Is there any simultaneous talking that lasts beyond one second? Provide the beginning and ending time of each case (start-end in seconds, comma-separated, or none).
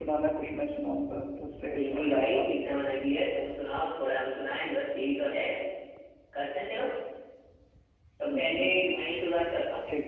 1.7-3.0